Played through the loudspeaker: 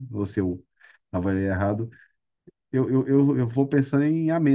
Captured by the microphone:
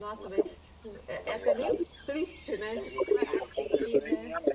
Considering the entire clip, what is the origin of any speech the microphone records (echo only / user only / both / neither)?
both